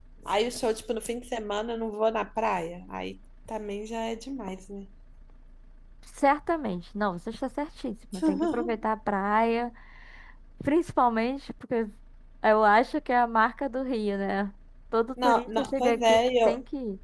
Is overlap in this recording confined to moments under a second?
No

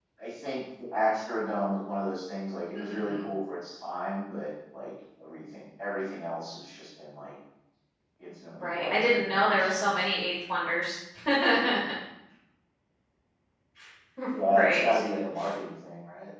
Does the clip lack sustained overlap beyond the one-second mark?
No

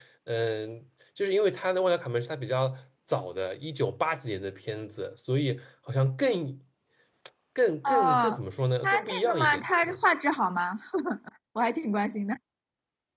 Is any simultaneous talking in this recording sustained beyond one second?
Yes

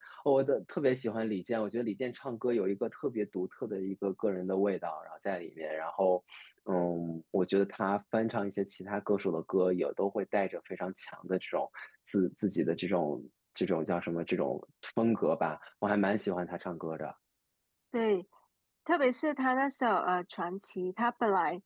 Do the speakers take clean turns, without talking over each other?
Yes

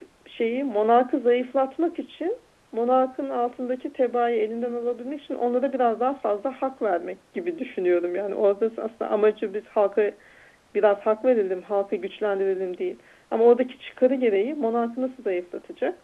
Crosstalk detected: No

